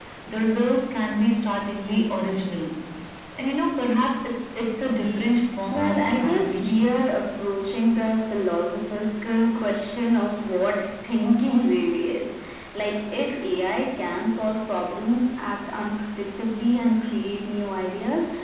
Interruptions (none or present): present